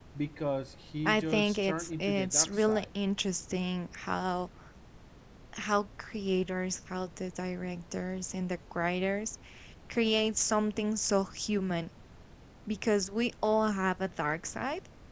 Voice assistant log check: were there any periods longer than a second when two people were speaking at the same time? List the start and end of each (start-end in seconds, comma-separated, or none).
1.1-2.9